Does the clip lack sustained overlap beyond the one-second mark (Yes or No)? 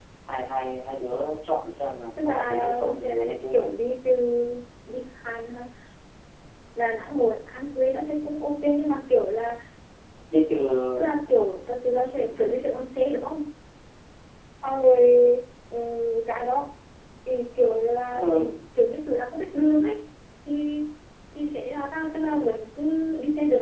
No